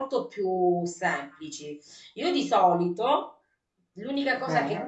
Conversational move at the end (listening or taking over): listening